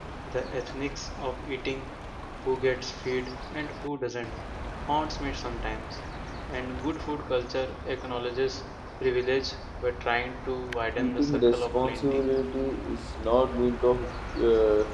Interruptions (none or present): present